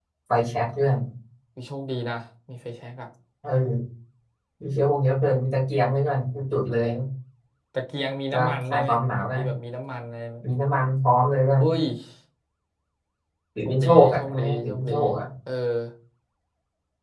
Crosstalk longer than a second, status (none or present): present